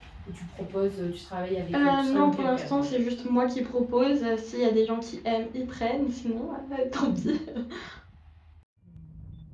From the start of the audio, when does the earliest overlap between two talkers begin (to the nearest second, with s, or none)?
2 s